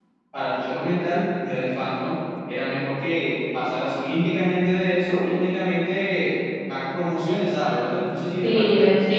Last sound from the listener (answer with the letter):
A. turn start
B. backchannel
A